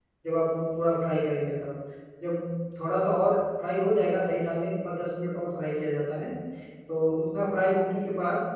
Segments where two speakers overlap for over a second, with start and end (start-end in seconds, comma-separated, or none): none